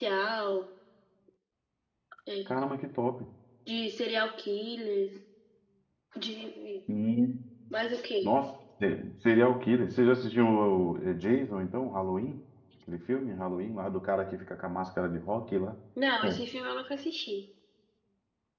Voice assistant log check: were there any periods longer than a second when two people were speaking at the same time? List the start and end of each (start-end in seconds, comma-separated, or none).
none